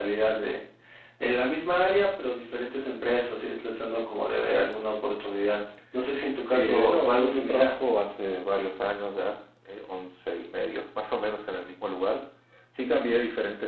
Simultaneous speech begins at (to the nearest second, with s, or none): 7 s